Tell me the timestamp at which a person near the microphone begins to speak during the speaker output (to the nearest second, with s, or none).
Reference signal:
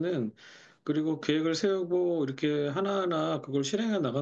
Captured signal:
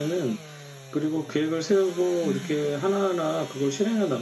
2 s